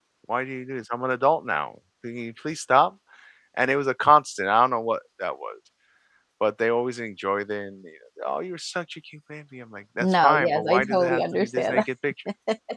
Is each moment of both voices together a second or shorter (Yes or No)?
No